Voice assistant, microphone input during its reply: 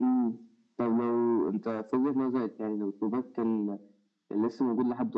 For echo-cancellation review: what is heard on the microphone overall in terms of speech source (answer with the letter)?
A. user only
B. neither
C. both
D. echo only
D